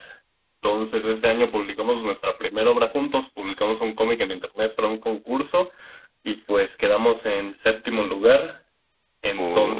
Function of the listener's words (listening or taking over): listening